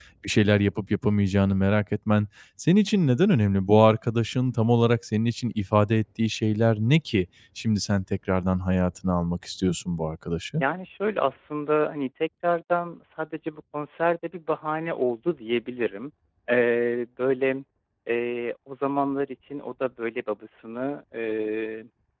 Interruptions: none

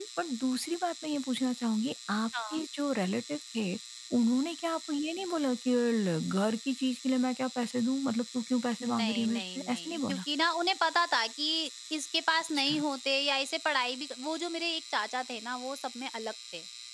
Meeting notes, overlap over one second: present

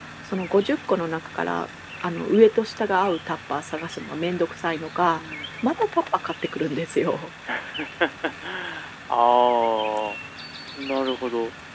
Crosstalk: none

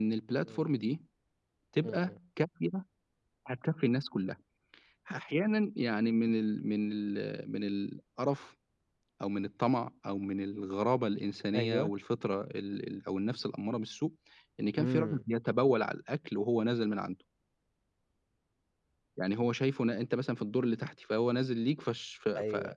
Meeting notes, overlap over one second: none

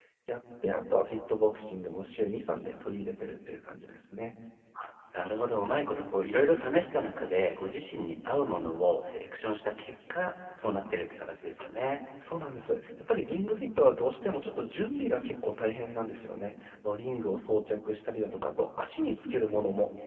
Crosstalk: none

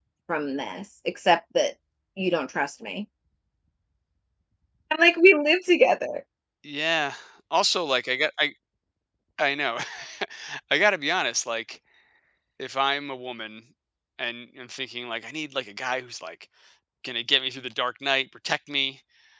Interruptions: none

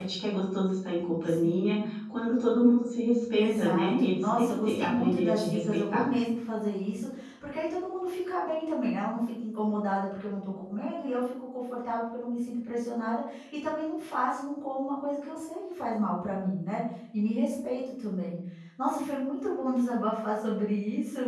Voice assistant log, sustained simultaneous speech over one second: present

